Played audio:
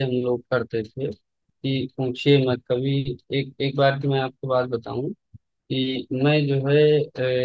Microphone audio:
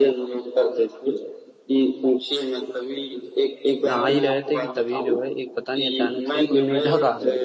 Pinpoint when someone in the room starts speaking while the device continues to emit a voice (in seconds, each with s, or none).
3.9 s